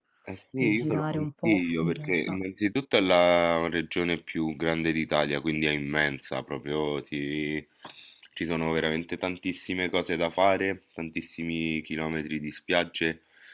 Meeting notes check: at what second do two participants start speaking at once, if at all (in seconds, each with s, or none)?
0.6 s